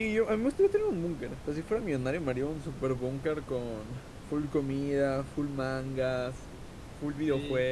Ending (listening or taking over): taking over